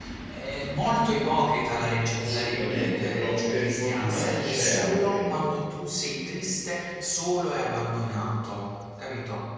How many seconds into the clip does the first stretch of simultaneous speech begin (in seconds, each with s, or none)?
2.1 s